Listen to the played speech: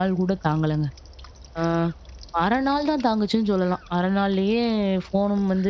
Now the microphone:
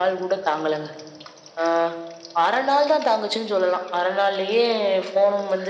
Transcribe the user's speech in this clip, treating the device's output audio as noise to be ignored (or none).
none